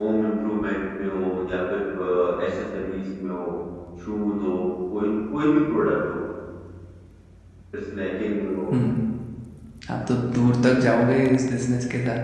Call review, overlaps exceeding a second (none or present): none